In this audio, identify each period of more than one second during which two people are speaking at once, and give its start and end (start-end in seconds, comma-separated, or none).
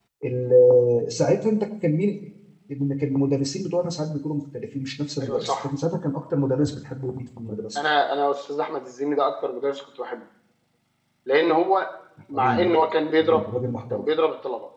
none